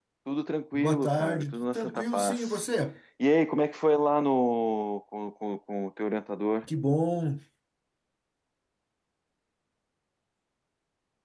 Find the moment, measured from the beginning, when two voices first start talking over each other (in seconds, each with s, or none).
0.7 s